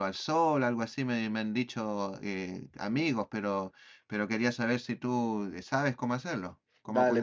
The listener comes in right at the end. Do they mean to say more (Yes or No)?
Yes